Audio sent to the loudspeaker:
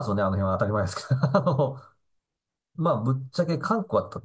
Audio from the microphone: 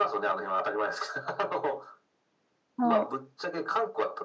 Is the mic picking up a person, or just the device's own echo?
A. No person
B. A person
B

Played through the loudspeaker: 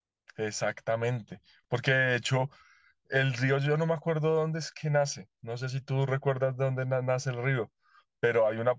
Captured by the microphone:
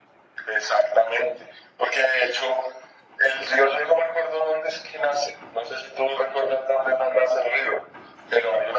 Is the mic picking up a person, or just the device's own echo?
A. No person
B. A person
A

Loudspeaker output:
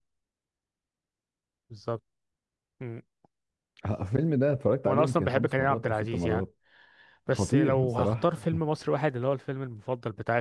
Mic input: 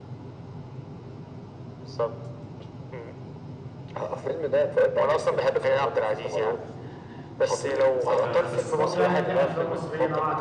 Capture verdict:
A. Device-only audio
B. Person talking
B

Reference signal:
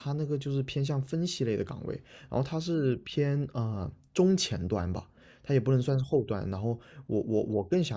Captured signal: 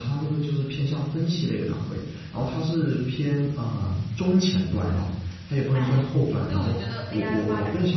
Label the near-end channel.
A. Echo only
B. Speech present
B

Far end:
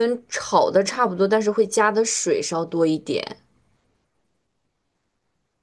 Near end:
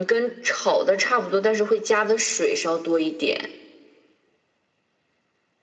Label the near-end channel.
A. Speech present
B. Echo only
B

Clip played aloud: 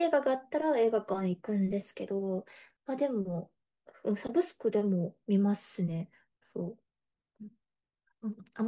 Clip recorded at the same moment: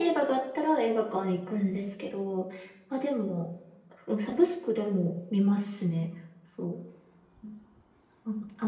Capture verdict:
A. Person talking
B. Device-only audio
B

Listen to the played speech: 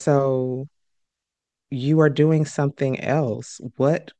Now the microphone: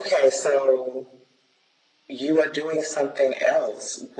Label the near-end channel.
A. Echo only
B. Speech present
A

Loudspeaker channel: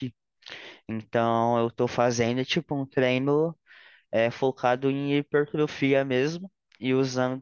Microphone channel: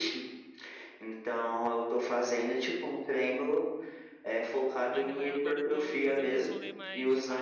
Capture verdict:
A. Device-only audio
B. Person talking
B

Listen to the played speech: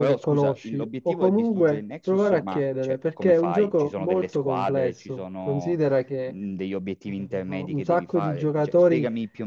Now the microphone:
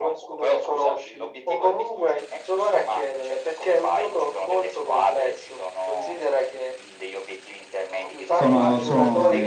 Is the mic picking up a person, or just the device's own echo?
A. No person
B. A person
B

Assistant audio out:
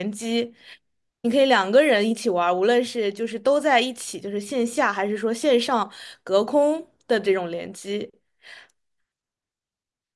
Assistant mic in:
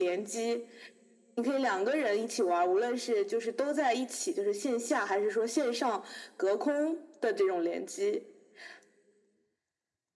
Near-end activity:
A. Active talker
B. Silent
B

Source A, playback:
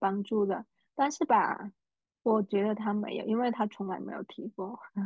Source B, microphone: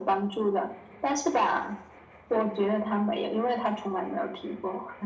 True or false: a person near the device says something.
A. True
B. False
B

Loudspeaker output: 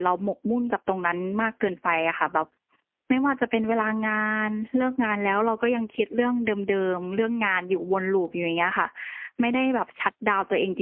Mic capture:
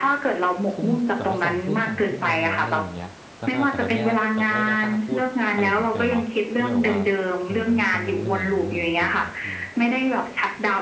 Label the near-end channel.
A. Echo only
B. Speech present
B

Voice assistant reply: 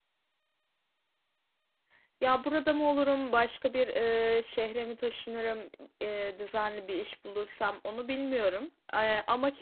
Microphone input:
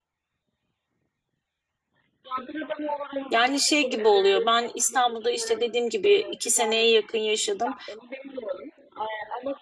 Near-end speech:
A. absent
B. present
B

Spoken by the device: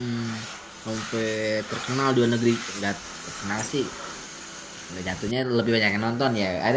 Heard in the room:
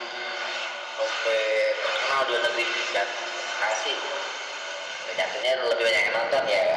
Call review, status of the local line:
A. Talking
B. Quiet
B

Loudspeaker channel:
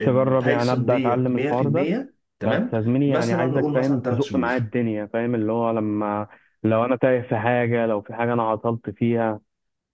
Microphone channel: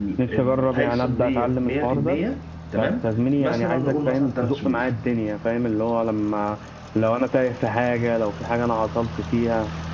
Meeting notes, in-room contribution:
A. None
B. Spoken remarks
A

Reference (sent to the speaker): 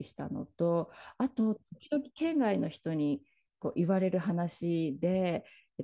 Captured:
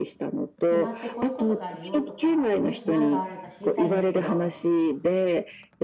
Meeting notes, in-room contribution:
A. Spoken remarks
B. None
A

